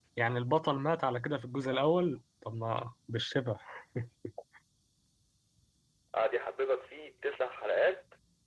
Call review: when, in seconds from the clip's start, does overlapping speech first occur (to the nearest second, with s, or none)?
none